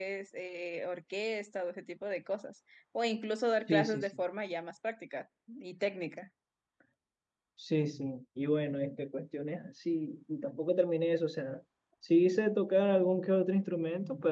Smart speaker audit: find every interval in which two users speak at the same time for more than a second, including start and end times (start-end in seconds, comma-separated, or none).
none